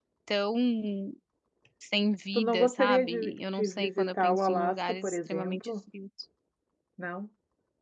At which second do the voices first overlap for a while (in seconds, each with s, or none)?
2.4 s